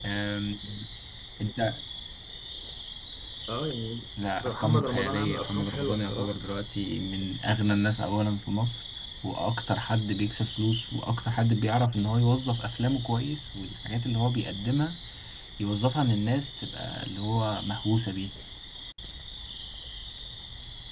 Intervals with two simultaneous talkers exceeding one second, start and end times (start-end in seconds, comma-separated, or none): 4.4-6.3